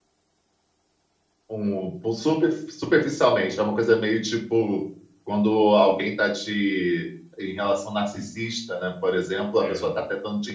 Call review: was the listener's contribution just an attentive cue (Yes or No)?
Yes